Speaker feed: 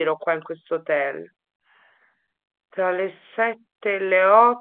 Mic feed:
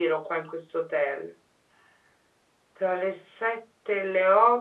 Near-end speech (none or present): none